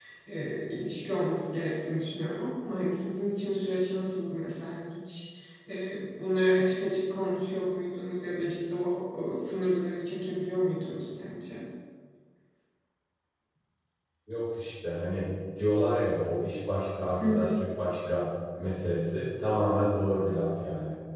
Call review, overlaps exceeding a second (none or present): none